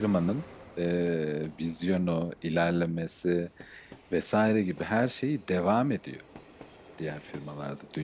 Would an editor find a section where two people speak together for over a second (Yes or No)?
No